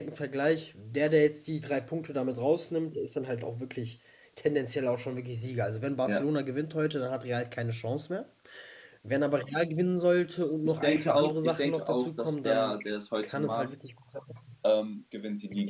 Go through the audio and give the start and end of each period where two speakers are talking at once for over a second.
10.6-12.8

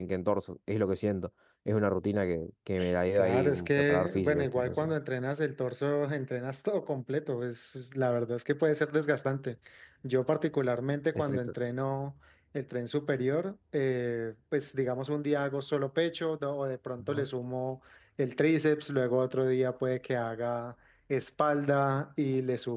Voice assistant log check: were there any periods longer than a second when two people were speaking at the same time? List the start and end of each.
3.2-4.9

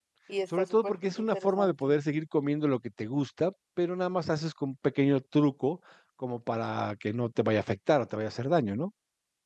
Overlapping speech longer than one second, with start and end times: 0.6-1.9

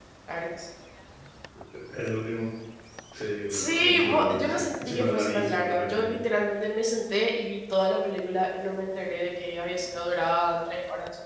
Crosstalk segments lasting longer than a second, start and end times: 3.5-6.2

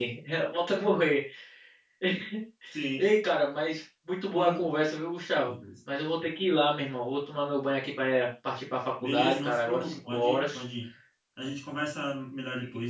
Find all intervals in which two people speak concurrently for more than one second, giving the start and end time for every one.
9.0-10.6

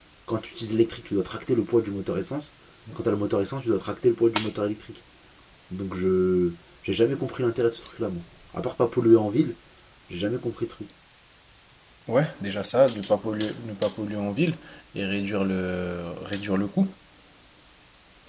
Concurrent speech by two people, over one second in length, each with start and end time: none

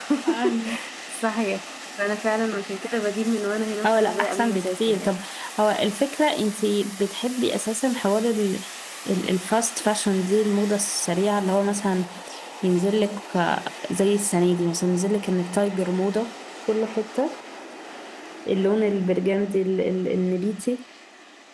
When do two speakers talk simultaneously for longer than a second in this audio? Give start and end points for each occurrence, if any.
3.9-5.2

